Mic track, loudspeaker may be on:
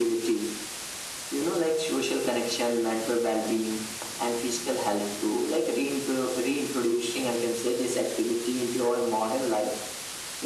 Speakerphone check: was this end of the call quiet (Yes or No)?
Yes